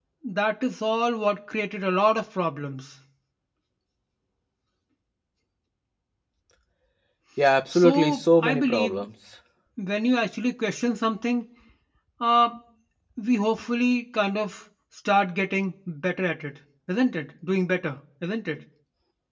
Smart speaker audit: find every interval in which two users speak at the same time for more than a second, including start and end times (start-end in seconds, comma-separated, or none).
7.7-9.0